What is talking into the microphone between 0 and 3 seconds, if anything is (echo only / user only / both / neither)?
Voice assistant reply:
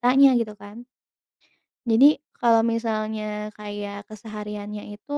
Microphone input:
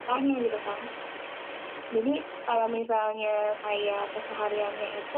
echo only